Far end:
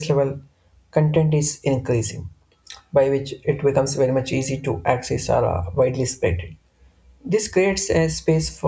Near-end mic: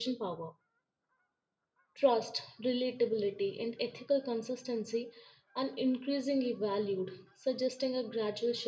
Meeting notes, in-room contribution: present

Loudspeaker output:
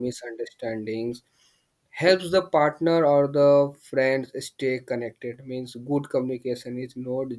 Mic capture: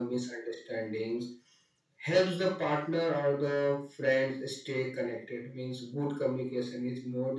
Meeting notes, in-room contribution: none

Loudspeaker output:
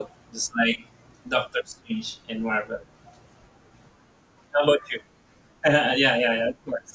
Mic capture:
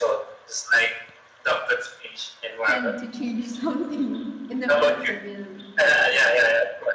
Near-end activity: present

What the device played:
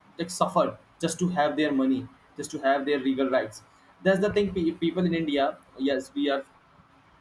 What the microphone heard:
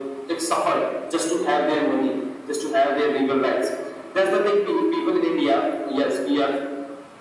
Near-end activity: none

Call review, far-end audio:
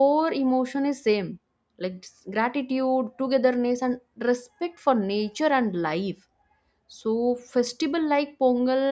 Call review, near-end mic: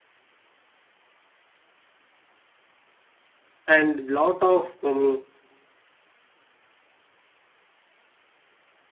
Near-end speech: present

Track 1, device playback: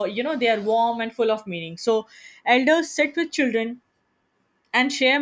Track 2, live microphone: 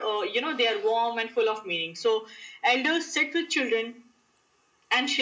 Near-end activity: none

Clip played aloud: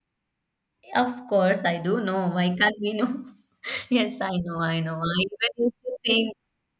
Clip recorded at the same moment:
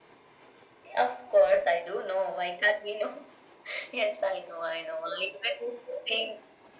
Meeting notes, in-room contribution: none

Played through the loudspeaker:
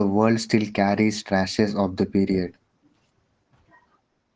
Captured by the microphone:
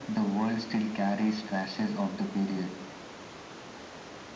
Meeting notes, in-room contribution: none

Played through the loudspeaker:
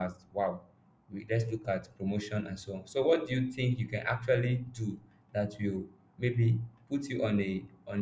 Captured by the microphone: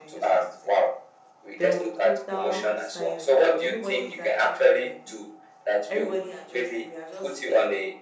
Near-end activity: present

